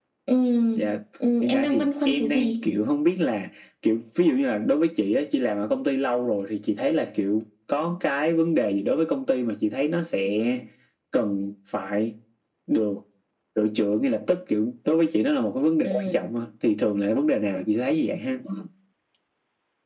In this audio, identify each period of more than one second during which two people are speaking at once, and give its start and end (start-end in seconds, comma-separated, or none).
1.4-2.6